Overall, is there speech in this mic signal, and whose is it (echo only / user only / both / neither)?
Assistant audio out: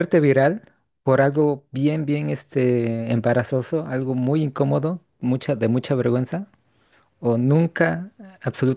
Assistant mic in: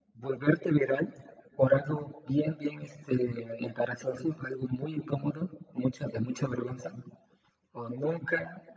echo only